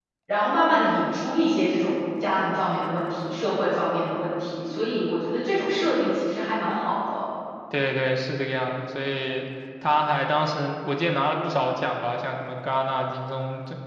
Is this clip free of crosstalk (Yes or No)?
Yes